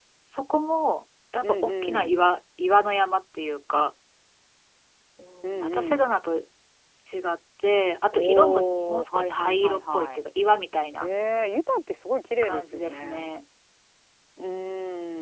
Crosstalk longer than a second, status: present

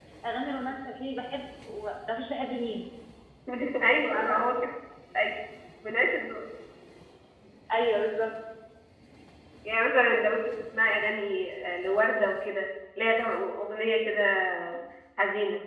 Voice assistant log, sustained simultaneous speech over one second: none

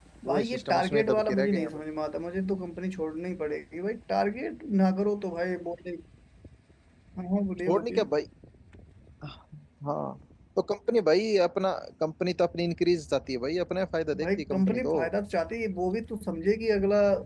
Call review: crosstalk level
present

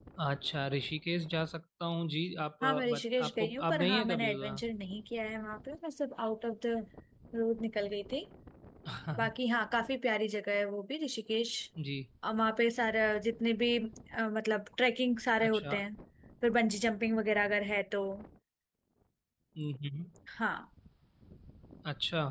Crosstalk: present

